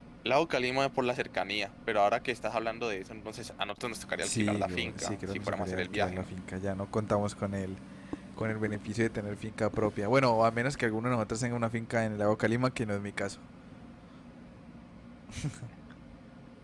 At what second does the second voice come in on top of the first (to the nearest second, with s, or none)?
4 s